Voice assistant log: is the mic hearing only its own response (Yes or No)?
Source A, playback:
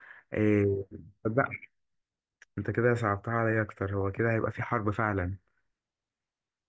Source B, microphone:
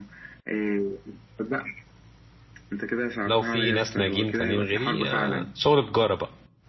No